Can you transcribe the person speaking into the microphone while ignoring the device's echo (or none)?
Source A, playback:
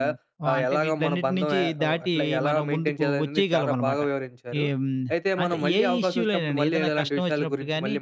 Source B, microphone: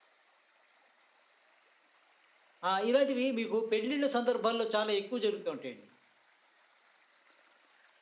ఆ! ఇలాంటివి మీకు పెళ్ళిళ్ళ సందర్భాల్లో చాలా ఎక్కువ జరుగుతూ ఉంటాయండి.